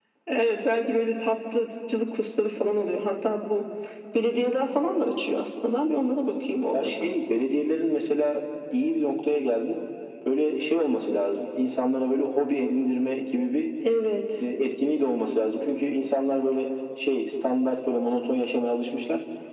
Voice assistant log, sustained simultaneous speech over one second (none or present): none